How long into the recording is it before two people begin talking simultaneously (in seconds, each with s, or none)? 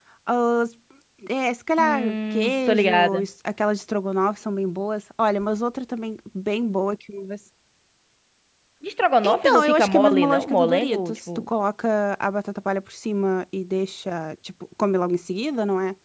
1.8 s